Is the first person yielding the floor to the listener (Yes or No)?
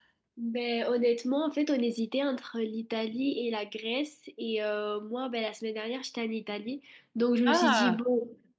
No